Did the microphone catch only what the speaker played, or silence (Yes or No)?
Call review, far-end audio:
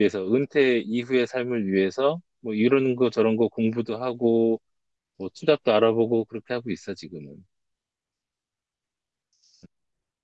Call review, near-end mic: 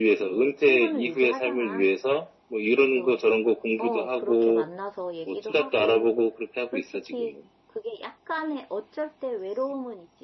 No